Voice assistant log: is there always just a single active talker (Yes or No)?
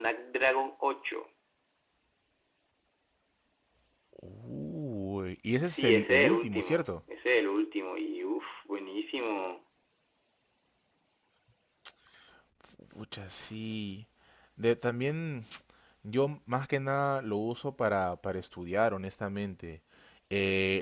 No